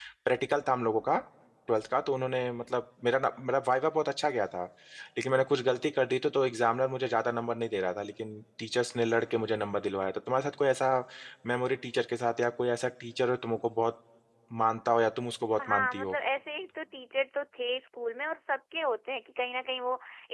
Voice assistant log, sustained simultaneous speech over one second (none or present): none